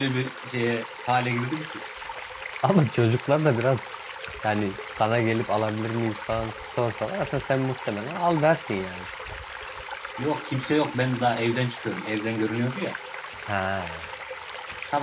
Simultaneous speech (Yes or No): No